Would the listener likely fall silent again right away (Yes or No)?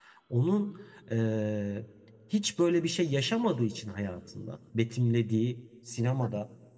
Yes